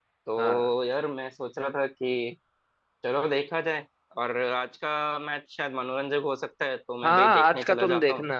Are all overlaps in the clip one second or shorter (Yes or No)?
No